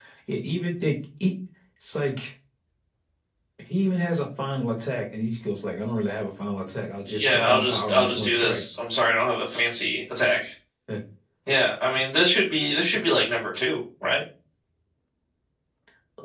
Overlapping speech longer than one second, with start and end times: 7.1-8.6

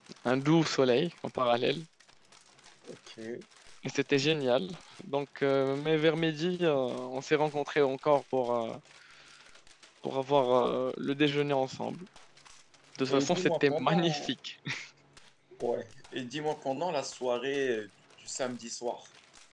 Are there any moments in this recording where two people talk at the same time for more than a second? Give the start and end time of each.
13.1-14.3

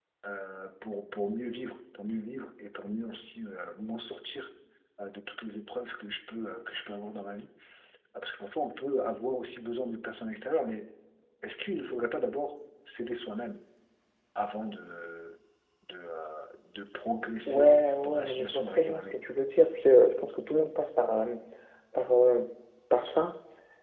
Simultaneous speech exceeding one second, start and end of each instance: 17.5-19.2

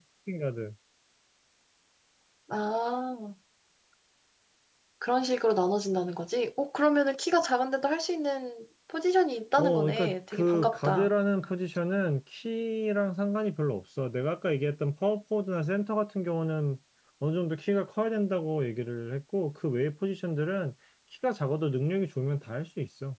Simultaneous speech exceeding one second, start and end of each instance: 9.6-11.1

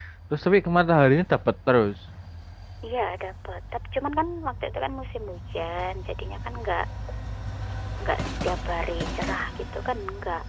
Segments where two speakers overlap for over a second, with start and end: none

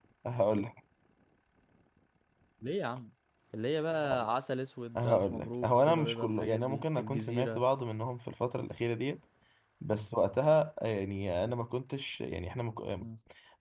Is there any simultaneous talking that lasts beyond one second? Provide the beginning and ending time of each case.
5.0-7.6

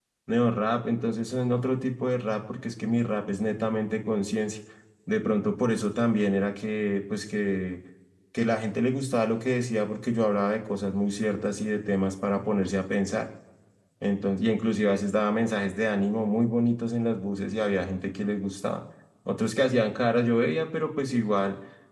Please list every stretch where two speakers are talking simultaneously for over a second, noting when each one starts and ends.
none

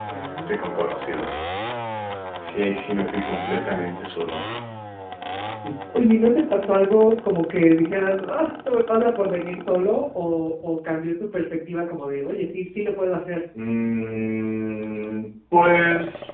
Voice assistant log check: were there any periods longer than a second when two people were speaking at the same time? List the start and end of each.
none

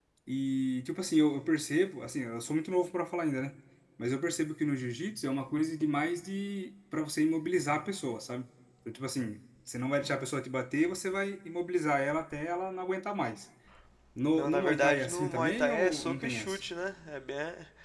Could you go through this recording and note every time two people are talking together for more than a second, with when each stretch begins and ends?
14.3-16.6

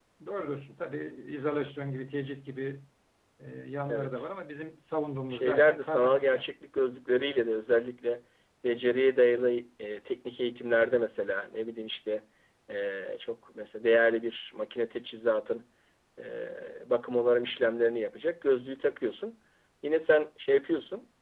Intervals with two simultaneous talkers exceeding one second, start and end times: 5.3-6.5

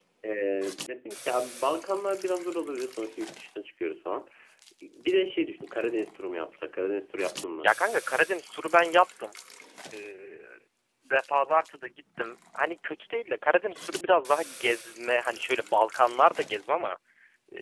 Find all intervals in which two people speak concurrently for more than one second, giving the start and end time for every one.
none

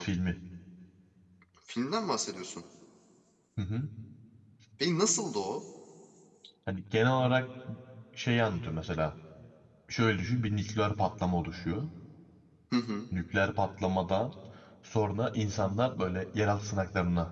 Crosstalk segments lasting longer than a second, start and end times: none

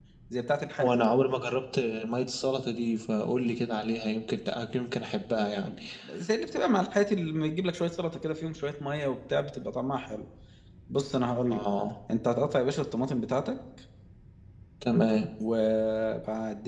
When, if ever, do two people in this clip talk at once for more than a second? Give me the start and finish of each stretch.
none

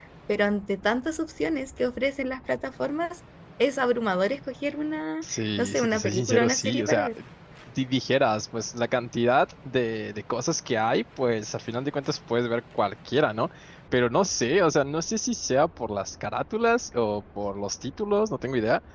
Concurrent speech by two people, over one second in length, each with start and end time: 5.2-7.1

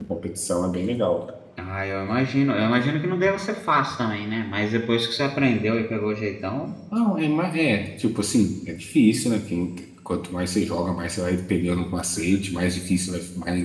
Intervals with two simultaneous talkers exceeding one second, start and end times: none

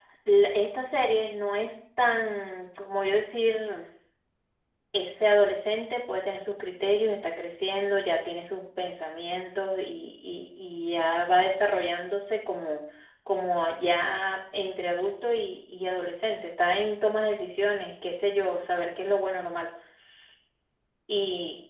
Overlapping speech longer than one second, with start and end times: none

